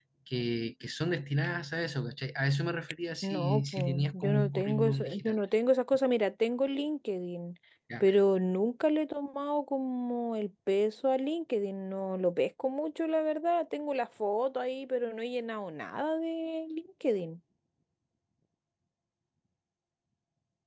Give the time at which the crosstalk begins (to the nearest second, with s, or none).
3 s